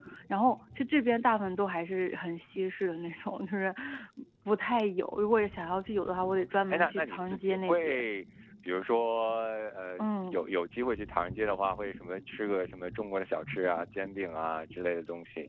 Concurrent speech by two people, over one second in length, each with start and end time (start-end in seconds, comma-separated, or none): 6.1-8.0